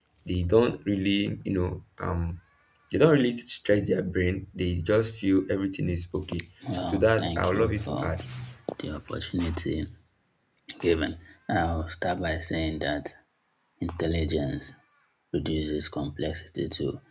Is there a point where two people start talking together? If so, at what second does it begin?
6.7 s

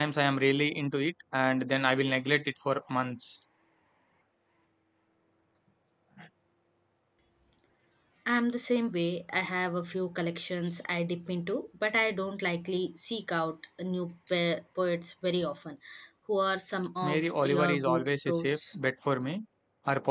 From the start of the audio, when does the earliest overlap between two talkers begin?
17.0 s

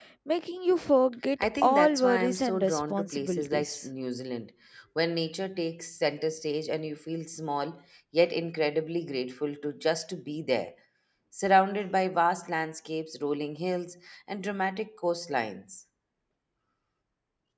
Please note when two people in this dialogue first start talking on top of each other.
1.4 s

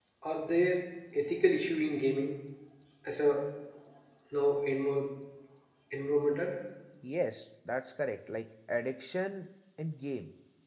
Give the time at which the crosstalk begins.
none

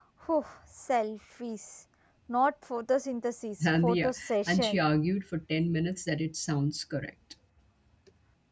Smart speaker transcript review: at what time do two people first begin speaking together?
3.6 s

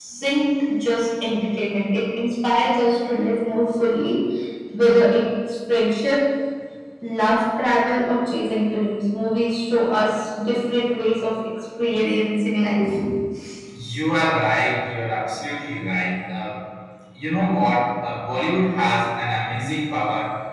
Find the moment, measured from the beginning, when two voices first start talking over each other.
none

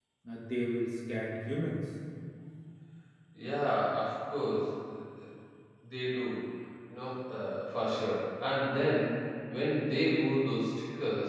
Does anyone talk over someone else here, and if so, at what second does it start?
none

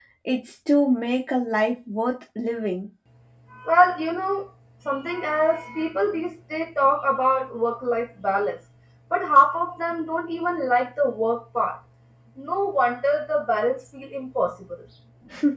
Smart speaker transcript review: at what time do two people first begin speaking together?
none

